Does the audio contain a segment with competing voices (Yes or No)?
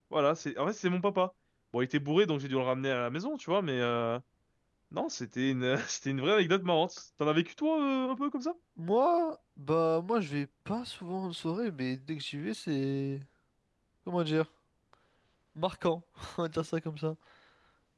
No